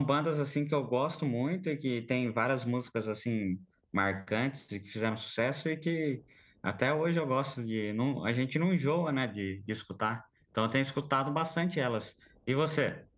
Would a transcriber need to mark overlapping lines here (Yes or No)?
No